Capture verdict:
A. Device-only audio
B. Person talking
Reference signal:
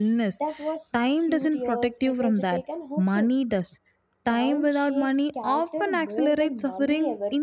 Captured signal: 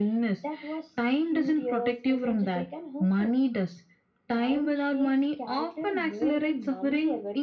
A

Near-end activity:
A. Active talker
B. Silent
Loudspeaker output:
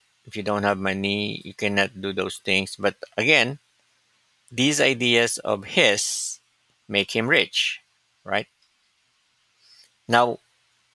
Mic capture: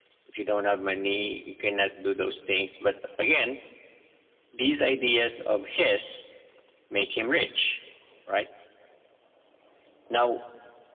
B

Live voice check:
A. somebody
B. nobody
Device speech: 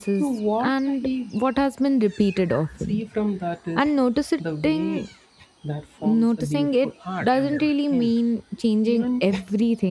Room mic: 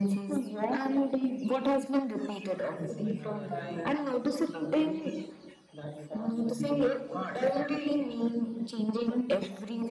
A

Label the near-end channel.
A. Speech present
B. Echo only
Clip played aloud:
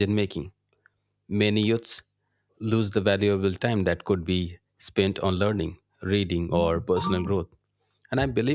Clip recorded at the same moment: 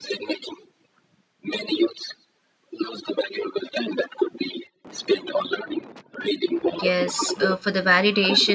A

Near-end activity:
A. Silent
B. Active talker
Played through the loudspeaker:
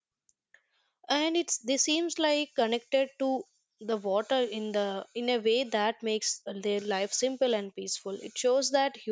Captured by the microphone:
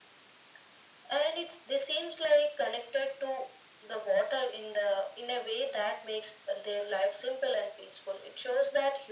A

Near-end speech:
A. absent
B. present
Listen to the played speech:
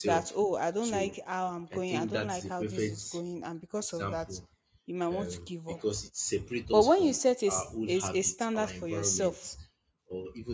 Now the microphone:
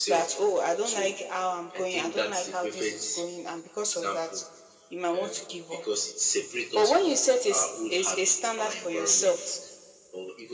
A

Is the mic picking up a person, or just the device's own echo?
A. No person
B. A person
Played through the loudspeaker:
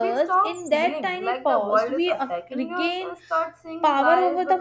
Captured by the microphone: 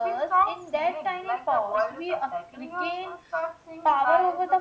A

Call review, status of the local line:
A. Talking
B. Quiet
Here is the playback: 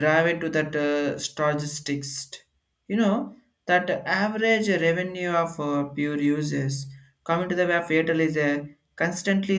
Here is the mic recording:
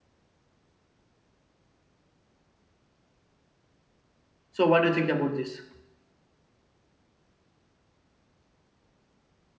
A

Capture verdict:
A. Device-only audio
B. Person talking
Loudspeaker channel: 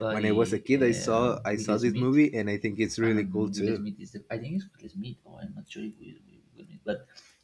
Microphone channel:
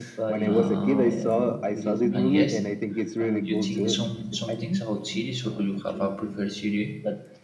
B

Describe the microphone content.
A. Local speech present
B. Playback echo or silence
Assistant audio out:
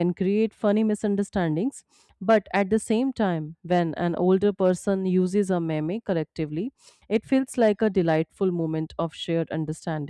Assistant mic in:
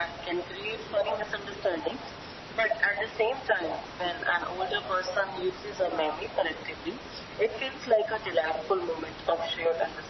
B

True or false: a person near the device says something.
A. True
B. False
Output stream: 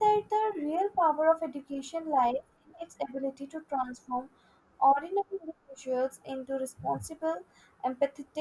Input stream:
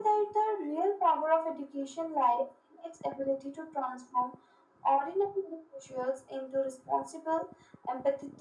B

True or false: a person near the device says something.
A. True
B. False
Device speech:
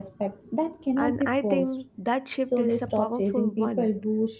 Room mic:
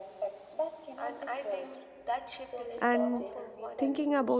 A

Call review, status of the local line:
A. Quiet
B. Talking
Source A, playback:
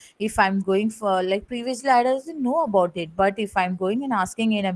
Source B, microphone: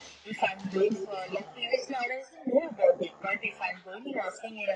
A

